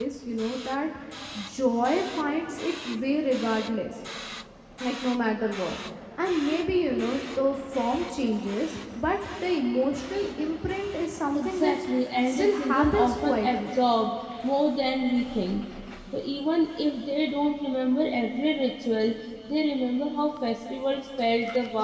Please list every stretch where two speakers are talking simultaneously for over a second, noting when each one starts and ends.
12.3-13.7

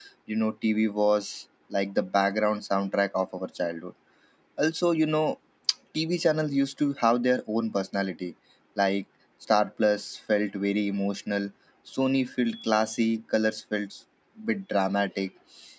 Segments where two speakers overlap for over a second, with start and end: none

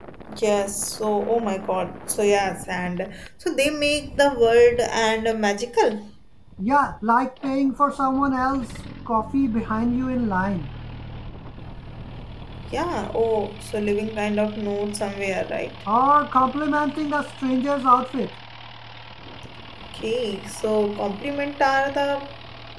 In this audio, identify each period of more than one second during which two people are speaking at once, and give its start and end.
none

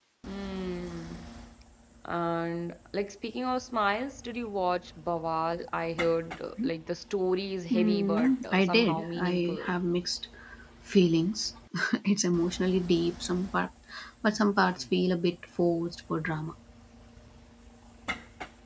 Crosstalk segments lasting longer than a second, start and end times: 7.7-9.7

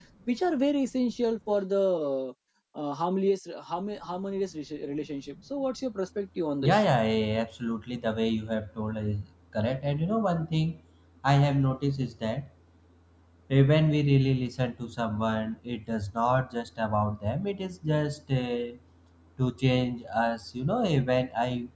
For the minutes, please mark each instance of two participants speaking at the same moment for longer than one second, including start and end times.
none

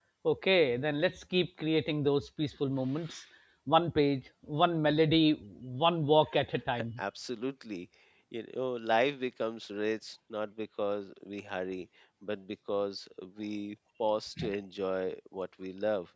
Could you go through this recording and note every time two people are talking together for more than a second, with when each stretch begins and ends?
none

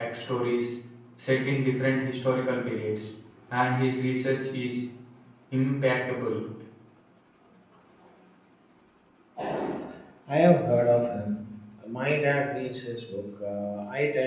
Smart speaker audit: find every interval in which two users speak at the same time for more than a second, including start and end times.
none

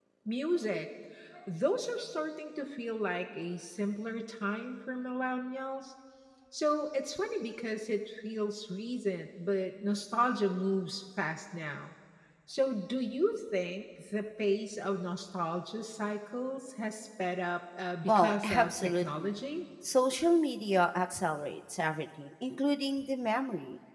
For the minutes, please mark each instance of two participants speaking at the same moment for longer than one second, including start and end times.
18.1-19.3

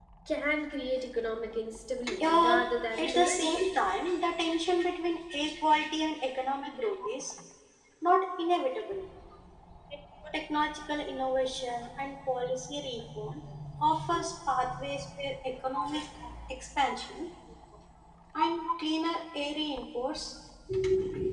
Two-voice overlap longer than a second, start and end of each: 2.2-3.6

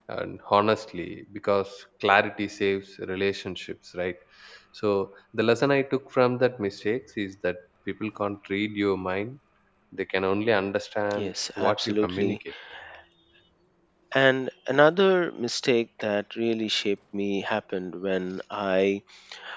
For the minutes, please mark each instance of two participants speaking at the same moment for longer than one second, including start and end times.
11.2-12.4

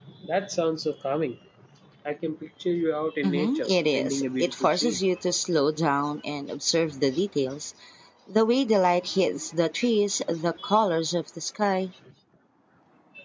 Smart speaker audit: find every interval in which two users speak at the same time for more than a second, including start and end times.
3.2-5.0

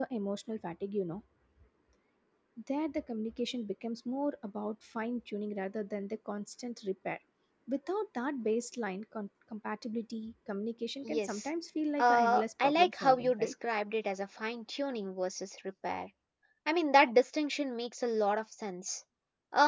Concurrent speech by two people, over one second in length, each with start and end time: 12.0-13.5

